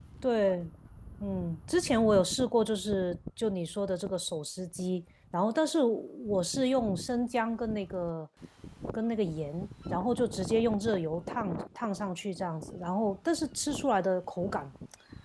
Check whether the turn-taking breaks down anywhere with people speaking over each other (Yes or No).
No